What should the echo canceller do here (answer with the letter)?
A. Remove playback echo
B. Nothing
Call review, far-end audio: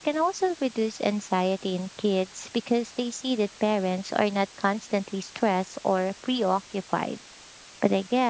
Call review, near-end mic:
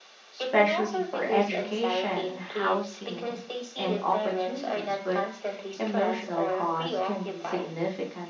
A